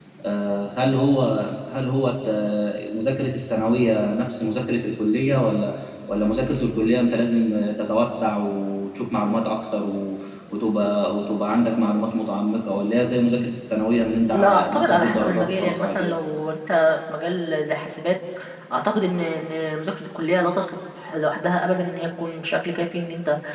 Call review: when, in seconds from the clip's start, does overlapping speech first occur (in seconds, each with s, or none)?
14.2 s